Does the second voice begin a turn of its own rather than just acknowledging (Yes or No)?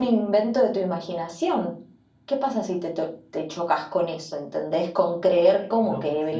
Yes